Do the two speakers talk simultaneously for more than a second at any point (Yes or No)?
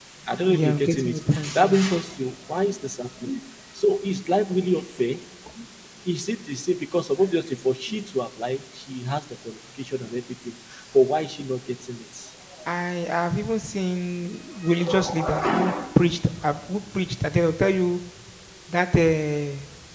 Yes